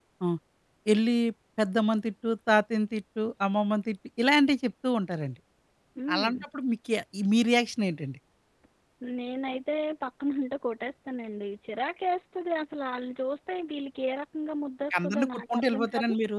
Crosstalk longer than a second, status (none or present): present